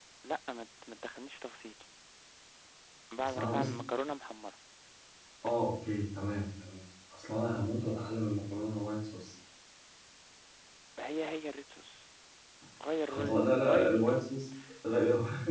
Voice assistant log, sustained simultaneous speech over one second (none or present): present